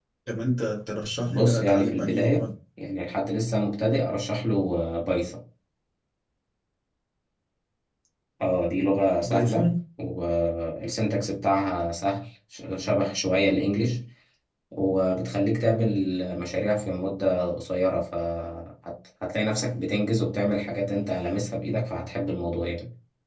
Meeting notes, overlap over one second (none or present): present